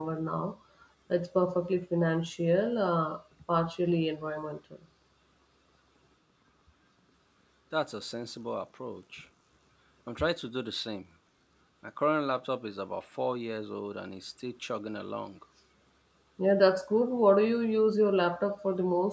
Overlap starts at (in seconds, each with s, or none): none